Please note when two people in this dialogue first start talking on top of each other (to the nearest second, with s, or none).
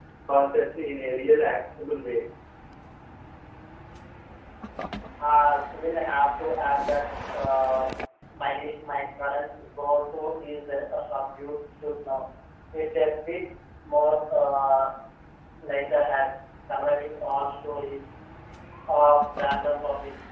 none